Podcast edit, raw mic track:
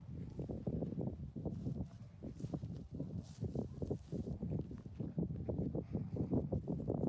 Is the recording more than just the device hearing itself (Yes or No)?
No